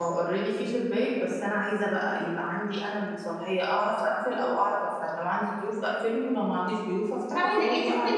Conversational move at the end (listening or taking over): taking over